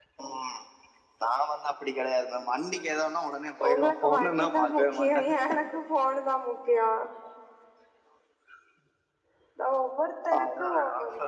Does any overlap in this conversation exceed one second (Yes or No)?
Yes